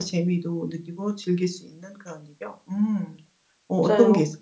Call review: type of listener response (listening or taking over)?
taking over